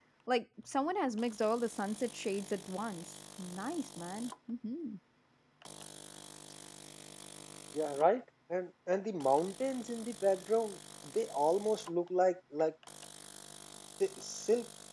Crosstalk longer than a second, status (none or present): none